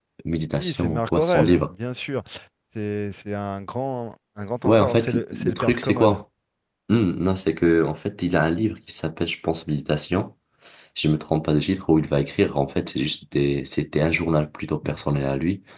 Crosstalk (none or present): present